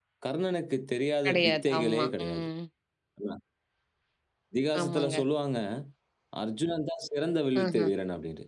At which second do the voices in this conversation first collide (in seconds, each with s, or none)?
1.2 s